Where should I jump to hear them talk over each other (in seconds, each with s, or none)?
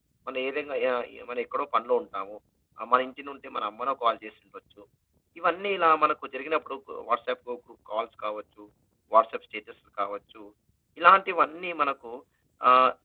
none